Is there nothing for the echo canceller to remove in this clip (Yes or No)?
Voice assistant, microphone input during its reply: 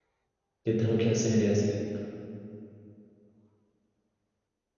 Yes